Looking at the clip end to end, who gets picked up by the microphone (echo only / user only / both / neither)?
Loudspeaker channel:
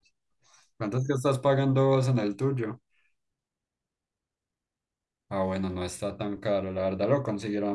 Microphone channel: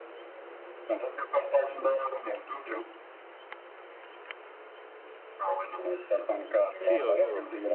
both